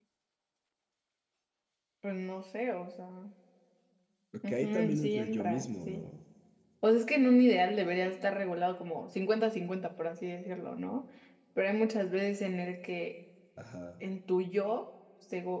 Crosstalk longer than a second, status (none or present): present